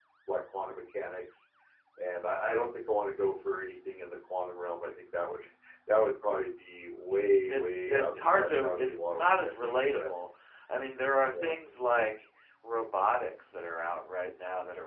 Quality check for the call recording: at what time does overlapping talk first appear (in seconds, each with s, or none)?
7.5 s